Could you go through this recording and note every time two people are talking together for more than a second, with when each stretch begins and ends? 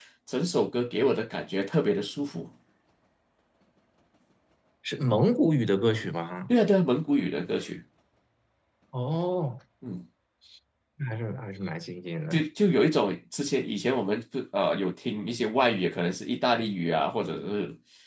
none

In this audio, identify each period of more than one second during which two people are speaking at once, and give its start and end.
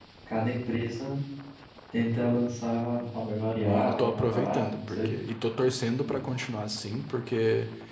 3.6-5.1

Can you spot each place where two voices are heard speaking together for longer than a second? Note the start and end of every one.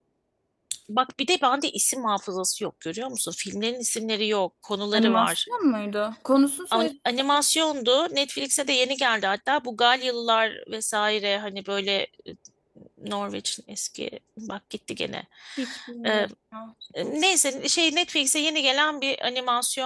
none

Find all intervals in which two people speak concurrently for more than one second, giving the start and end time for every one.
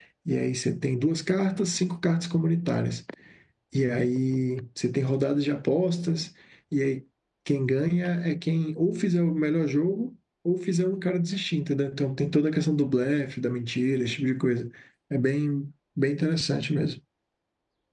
none

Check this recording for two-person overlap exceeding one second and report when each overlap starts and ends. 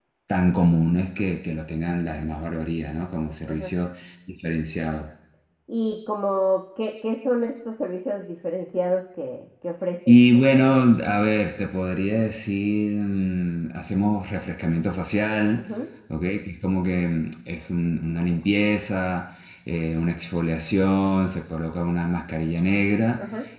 none

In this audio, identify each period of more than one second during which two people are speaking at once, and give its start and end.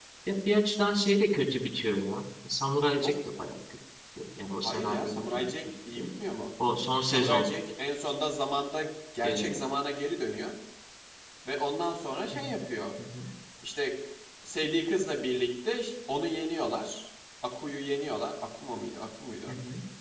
4.6-6.1

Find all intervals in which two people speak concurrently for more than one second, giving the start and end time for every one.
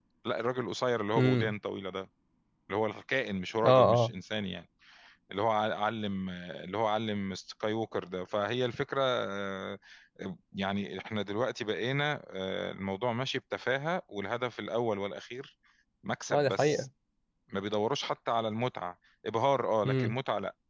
none

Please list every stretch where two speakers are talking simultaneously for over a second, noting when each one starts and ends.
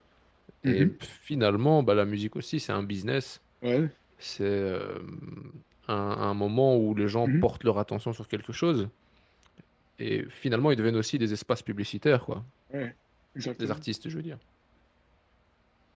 none

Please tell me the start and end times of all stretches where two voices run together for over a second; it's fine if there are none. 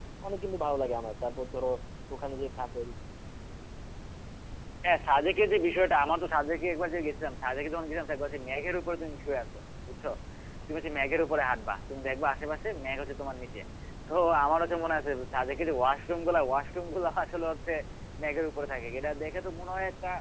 none

